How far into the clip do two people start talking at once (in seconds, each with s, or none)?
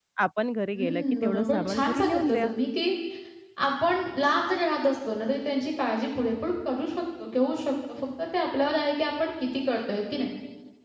0.7 s